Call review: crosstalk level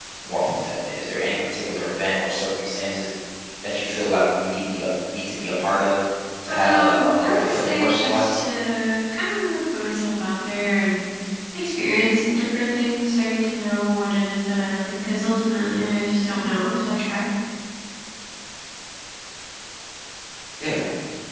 present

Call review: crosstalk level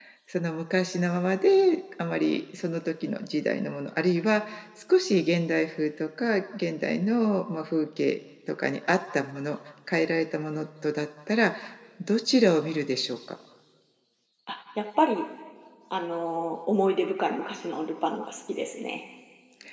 none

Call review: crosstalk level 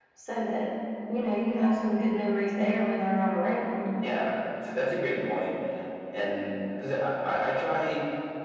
none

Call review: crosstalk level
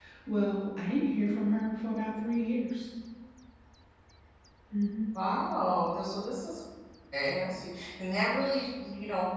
none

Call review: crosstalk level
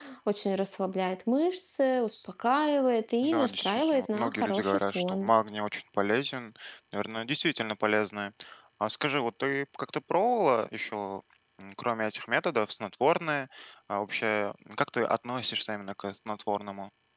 present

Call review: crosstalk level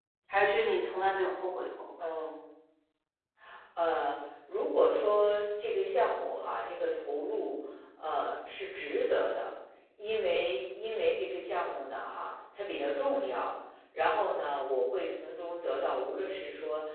none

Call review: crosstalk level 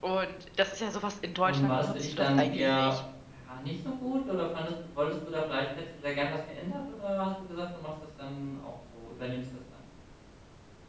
present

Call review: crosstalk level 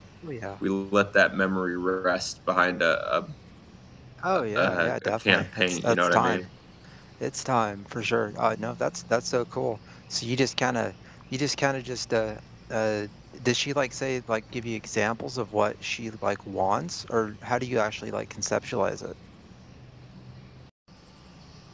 present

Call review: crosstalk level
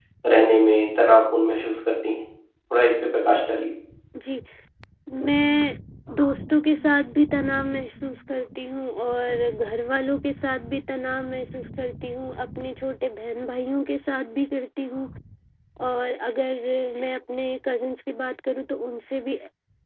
none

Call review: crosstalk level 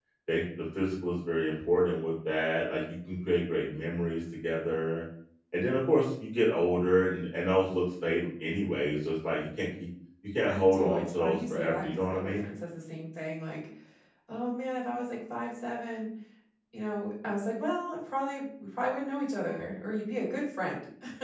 present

